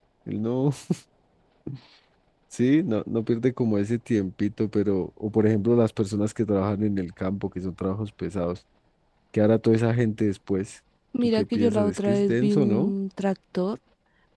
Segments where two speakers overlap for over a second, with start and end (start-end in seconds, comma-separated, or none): 11.2-12.9